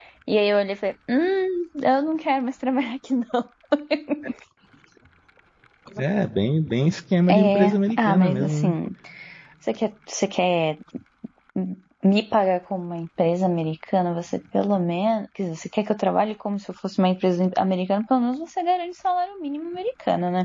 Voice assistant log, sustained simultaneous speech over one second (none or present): present